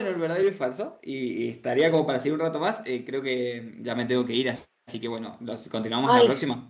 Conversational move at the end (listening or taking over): taking over